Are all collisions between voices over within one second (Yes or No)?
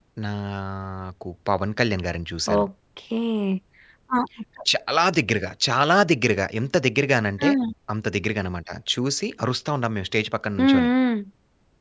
Yes